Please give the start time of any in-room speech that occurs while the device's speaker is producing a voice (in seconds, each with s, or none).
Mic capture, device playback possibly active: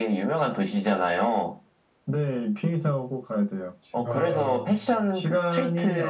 3.8 s